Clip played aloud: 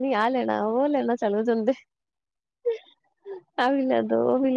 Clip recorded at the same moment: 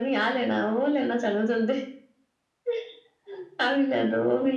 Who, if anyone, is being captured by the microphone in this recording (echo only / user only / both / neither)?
echo only